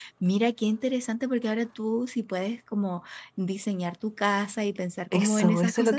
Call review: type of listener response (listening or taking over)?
taking over